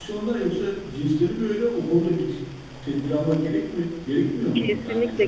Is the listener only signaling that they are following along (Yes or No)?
No